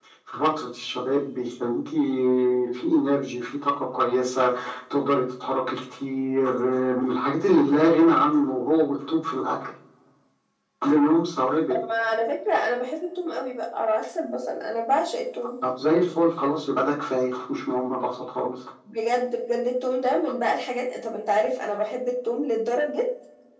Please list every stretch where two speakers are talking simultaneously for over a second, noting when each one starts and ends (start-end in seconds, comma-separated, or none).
none